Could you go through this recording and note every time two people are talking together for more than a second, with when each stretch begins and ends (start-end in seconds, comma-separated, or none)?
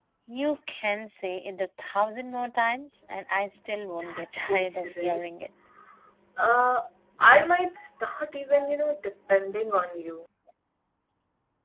4.0-5.2